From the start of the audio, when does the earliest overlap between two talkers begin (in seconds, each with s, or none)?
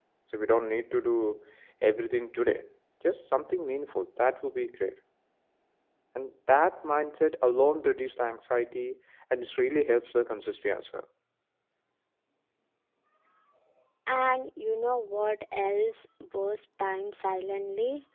none